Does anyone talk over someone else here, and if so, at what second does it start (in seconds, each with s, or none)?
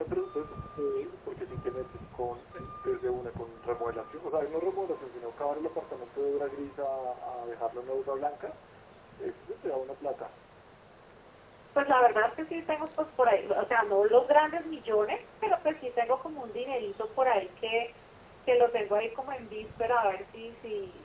none